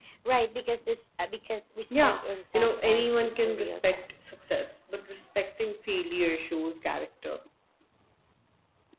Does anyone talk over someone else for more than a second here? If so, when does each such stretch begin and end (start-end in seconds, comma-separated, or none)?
1.9-4.2